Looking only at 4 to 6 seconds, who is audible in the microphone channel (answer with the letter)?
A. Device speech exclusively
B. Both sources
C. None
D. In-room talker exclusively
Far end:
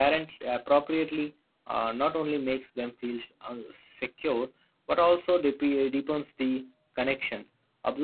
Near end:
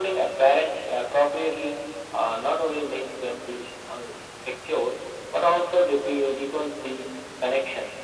A